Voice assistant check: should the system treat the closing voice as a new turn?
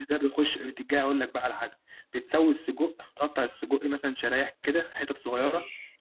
No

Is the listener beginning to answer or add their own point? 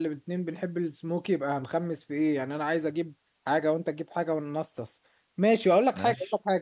No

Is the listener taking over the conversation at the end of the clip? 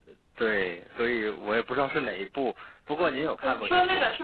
Yes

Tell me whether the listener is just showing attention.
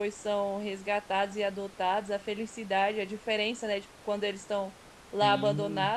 Yes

